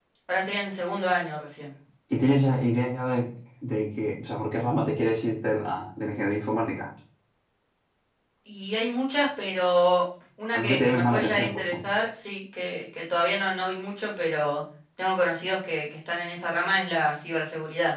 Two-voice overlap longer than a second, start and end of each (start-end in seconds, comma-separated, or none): 10.5-11.9